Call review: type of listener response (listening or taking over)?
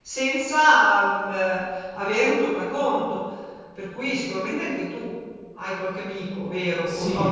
taking over